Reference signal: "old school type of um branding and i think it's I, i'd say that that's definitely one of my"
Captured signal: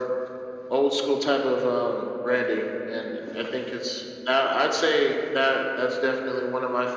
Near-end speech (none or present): none